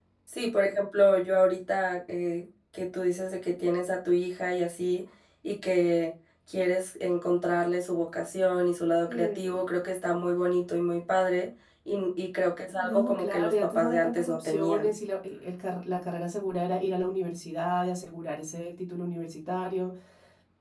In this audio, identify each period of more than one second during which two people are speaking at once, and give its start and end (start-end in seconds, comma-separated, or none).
12.7-14.9